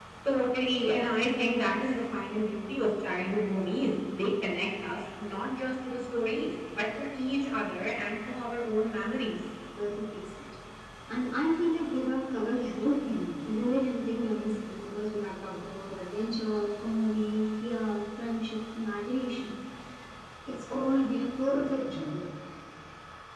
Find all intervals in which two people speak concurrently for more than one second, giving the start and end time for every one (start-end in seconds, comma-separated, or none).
none